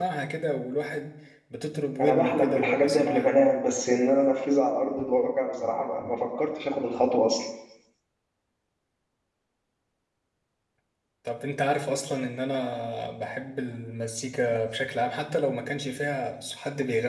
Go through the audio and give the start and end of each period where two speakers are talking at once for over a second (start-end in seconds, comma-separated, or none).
2.0-3.3